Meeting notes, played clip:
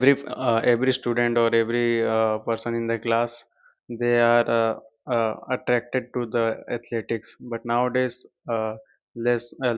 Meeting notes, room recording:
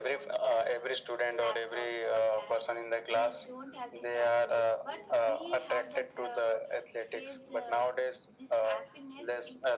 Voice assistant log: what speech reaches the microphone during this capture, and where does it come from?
both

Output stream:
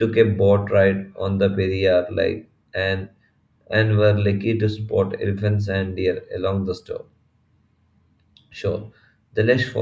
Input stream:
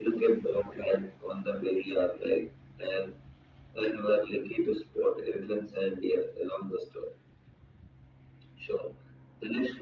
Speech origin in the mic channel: echo only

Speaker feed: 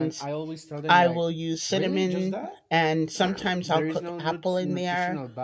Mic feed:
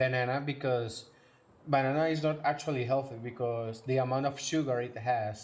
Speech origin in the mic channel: user only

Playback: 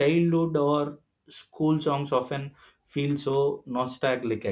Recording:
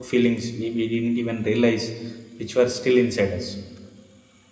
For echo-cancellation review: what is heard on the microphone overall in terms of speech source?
user only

